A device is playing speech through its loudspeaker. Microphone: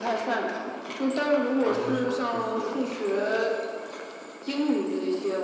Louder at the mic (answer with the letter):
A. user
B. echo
B